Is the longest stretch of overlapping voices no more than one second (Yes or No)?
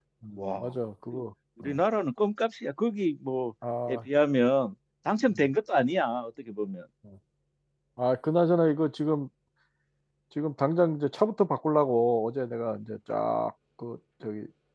Yes